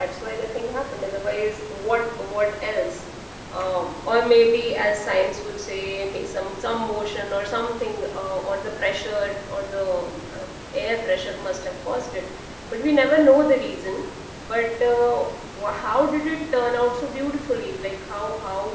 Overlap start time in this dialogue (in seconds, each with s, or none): none